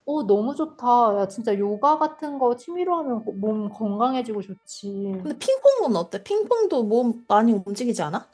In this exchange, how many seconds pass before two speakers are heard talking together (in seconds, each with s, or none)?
none